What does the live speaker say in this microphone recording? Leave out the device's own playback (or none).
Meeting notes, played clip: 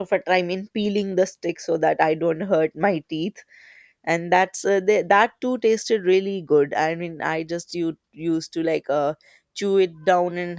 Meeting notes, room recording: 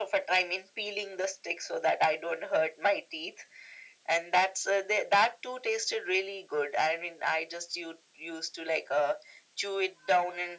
none